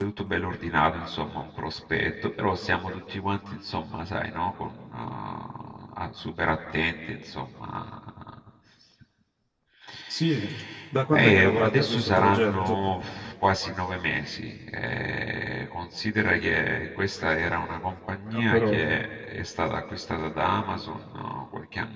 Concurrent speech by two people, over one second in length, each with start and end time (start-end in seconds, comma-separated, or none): 11.1-12.8